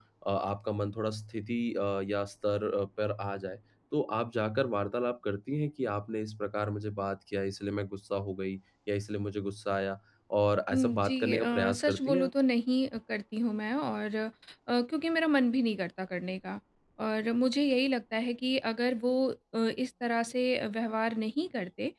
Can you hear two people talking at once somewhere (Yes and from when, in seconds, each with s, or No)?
Yes, from 10.7 s